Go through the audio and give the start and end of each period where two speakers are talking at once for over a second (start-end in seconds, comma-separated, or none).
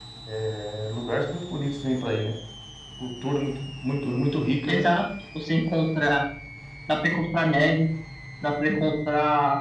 none